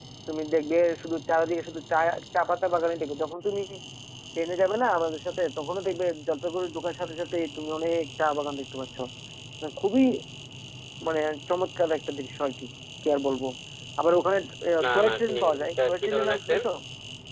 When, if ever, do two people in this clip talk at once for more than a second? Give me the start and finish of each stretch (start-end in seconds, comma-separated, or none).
14.9-16.6